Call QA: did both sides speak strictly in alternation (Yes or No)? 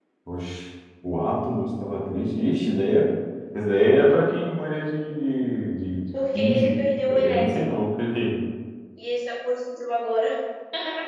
No